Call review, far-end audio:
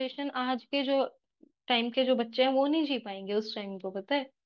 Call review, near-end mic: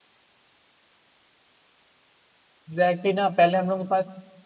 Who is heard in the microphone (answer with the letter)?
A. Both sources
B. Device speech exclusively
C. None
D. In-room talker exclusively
D